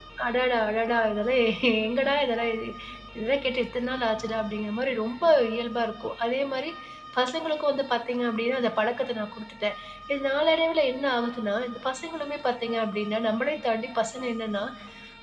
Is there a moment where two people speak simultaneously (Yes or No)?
No